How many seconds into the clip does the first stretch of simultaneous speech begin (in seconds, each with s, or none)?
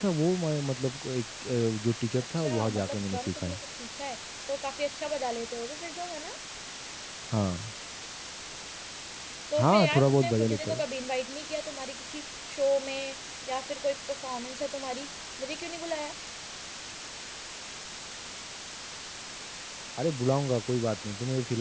2.4 s